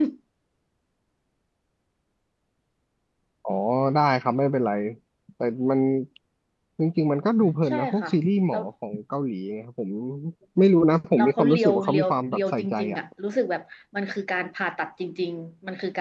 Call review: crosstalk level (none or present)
present